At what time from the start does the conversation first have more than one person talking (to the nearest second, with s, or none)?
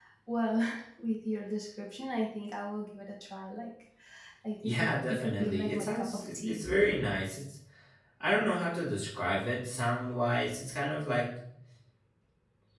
5 s